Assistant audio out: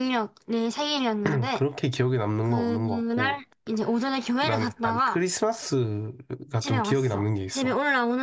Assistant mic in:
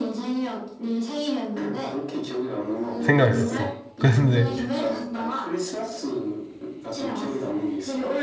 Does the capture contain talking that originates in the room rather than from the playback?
Yes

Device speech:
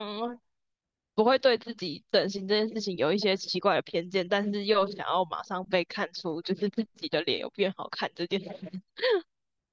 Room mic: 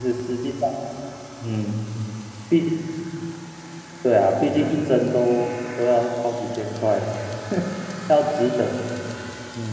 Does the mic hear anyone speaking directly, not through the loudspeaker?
Yes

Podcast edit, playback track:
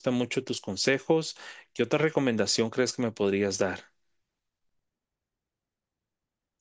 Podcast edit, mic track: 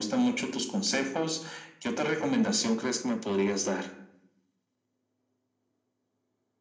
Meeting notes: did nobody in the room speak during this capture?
Yes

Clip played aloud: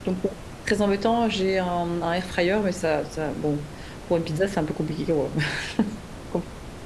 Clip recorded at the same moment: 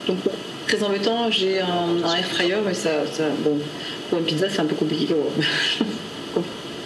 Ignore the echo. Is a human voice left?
Yes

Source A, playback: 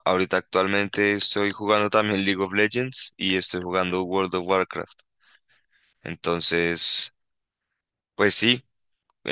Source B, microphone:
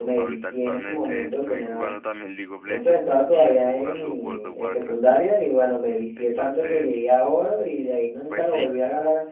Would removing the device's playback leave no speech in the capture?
No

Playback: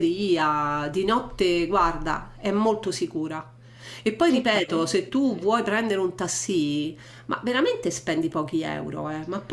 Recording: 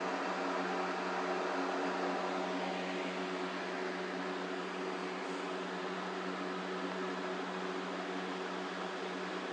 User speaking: No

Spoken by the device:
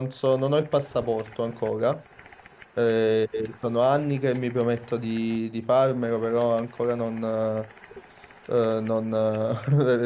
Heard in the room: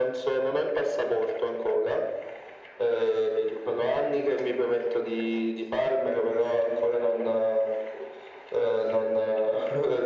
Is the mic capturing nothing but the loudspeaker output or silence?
Yes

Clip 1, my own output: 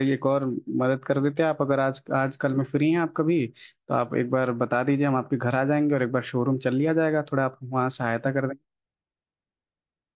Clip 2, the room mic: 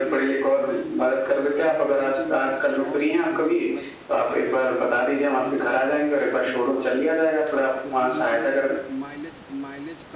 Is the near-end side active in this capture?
Yes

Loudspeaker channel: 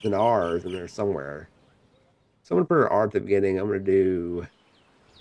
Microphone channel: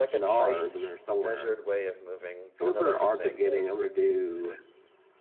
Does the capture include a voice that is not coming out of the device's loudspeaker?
Yes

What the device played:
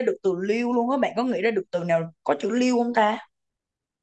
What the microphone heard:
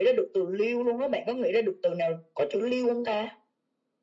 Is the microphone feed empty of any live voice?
Yes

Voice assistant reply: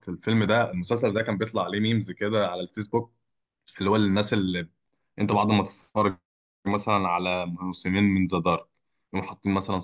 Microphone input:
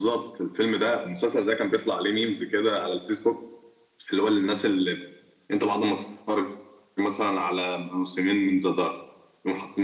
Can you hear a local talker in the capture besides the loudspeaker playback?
No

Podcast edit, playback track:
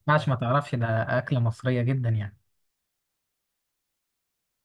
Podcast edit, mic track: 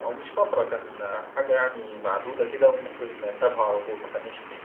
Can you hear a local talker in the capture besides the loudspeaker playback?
Yes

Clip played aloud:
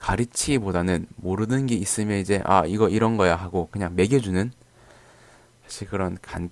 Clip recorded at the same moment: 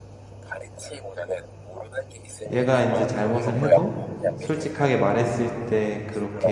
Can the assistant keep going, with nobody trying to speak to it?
No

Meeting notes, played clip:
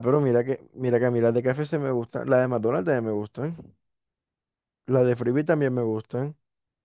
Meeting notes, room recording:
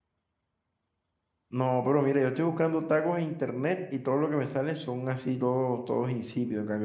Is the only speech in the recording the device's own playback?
No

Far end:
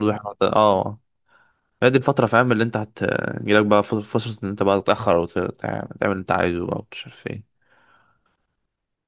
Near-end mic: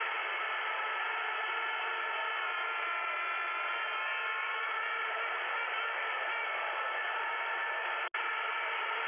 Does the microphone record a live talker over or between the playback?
No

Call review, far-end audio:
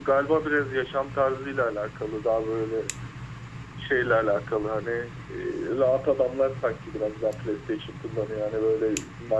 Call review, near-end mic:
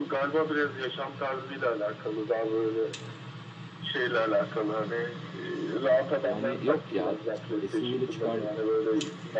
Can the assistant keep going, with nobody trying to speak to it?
No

